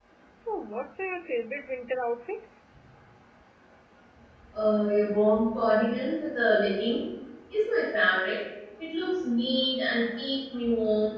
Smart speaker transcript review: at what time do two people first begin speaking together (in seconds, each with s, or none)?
none